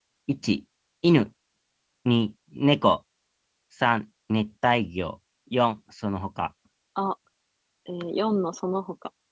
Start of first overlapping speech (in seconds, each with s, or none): none